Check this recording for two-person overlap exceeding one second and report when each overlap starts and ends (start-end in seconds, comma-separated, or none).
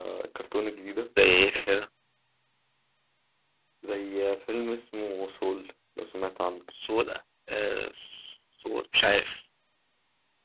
none